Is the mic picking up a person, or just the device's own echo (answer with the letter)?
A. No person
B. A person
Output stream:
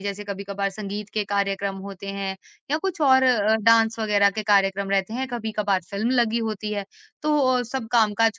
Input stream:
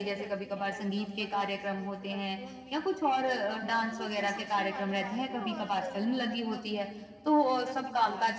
B